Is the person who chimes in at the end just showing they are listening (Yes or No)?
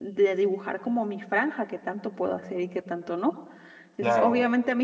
Yes